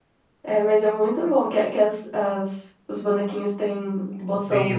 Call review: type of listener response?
taking over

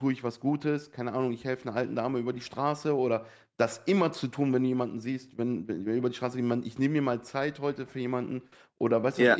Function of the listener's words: listening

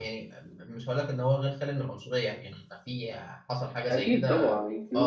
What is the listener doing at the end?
taking over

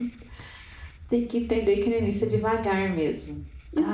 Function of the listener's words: taking over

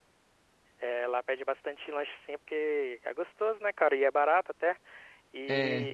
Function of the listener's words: listening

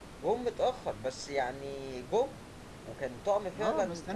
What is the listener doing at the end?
taking over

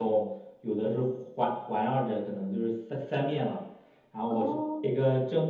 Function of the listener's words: listening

